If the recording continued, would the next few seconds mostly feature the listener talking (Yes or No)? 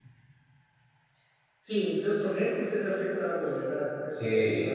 Yes